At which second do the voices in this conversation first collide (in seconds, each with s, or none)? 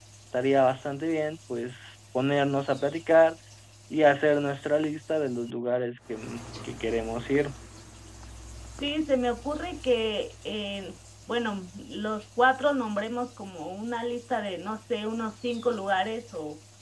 none